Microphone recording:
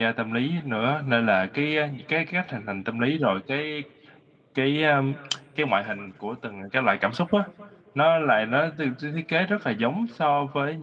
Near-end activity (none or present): present